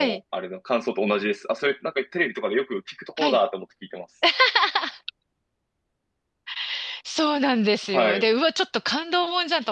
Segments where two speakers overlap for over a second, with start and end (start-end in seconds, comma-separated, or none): none